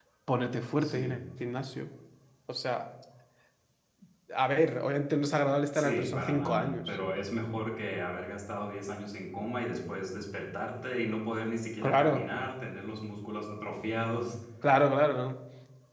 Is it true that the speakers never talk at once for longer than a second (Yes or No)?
No